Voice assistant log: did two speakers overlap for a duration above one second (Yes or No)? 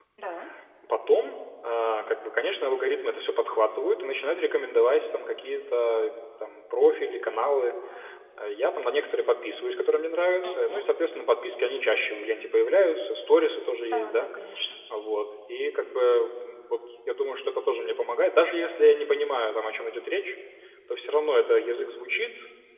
No